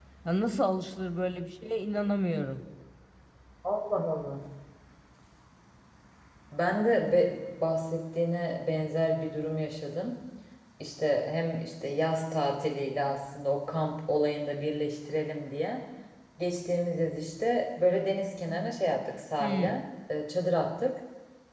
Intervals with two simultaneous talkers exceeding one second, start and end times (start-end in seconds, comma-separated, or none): none